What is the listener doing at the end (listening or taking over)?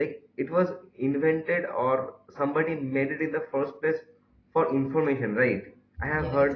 listening